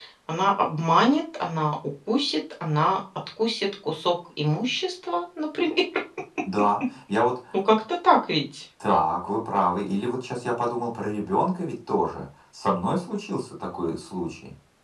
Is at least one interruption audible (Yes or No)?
No